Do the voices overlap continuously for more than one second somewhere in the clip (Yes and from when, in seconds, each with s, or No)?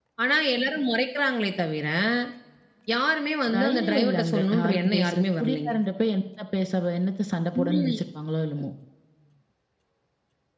Yes, from 3.5 s